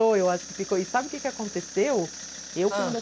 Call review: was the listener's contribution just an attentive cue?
Yes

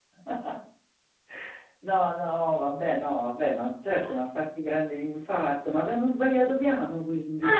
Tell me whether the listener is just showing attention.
No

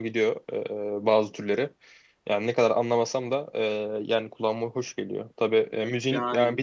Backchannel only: Yes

